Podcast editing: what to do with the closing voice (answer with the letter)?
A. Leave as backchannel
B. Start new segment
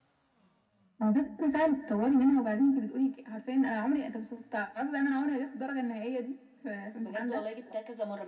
B